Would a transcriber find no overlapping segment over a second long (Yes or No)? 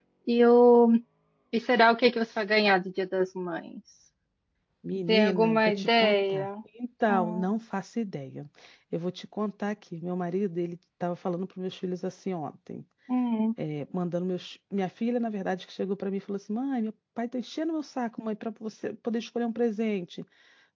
No